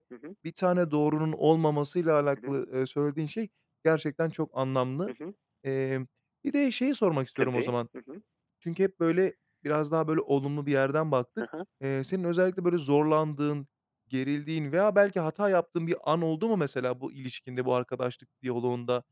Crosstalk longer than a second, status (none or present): none